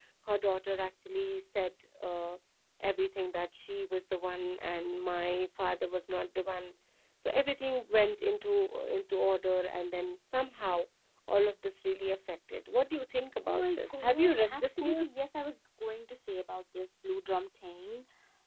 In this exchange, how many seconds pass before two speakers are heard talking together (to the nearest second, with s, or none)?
13 s